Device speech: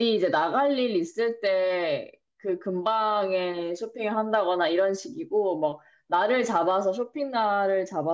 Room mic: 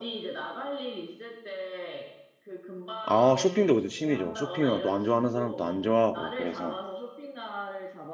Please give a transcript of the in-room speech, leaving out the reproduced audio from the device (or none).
아, 쇼핑도 그죠. 취미죠. 쇼핑은 또 안 좋아하는 사람도 안 좋아하고, 그래서.